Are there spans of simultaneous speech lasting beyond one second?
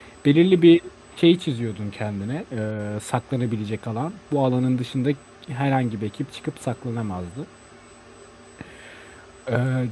No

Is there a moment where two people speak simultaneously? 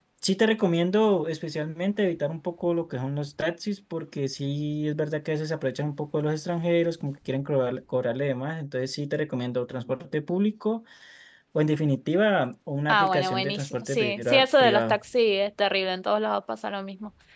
Yes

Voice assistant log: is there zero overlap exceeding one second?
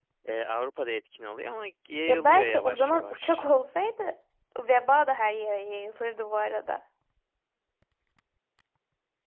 No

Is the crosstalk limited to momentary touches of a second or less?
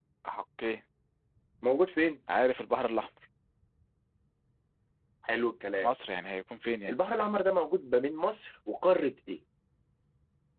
Yes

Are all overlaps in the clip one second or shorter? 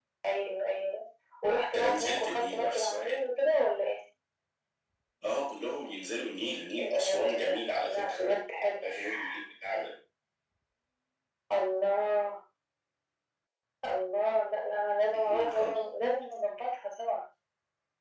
No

